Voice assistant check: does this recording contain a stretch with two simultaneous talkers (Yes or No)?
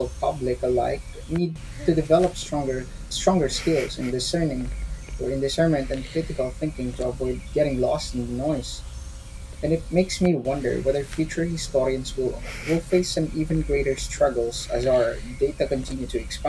No